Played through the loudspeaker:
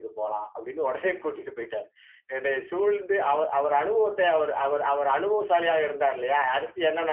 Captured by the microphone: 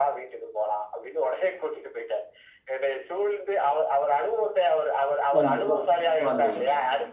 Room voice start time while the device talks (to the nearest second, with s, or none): 5 s